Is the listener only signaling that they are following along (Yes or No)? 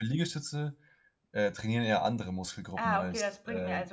No